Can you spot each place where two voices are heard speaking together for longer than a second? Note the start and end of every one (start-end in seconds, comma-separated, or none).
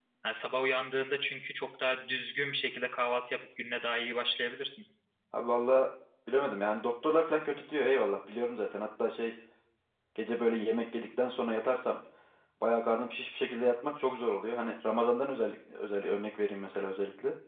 none